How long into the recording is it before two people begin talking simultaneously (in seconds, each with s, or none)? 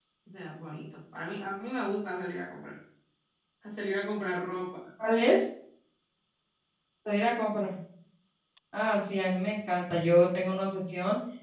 none